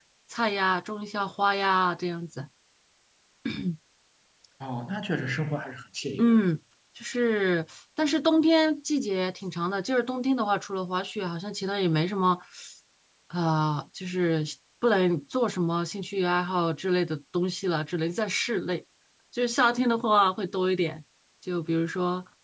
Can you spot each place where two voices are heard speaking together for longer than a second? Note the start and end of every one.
none

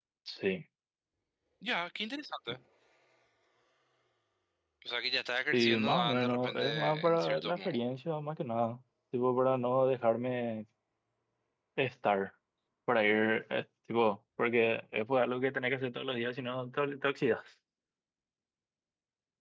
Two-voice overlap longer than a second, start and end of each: 5.5-7.7

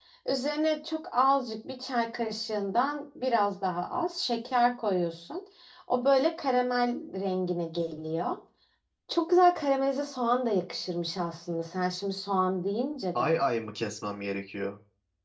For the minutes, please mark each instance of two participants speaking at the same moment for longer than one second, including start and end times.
none

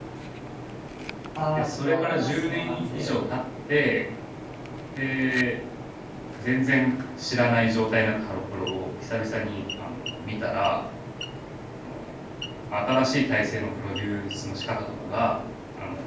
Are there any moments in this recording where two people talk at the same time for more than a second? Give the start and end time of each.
1.6-3.2

